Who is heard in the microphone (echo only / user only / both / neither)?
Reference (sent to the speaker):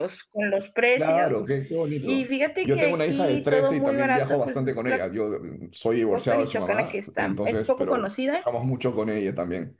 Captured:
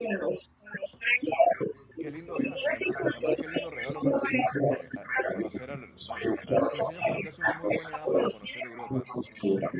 both